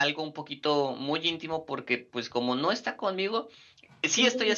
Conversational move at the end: listening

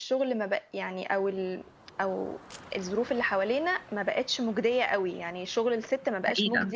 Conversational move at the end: listening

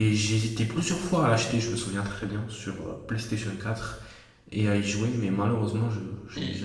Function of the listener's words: taking over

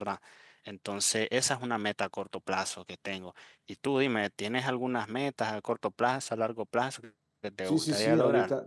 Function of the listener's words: taking over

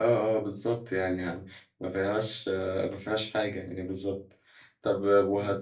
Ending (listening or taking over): listening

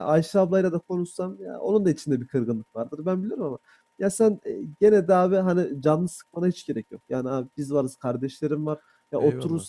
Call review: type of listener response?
listening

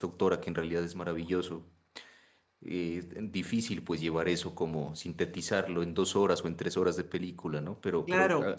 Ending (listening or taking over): taking over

